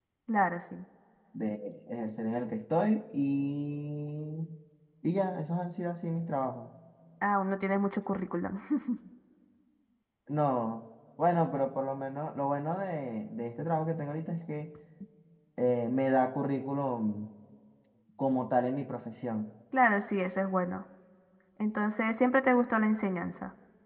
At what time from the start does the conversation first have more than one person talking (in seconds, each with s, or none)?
none